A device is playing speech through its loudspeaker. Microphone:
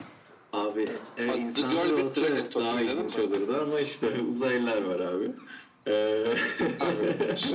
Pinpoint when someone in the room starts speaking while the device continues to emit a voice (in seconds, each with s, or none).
none